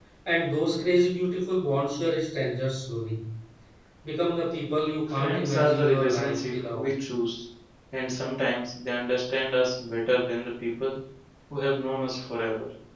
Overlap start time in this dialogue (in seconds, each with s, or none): 5.1 s